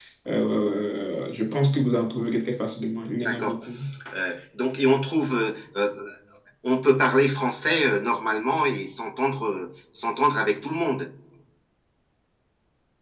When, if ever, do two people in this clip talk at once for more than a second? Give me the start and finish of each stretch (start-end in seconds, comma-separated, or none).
none